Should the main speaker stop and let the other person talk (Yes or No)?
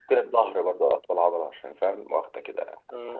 Yes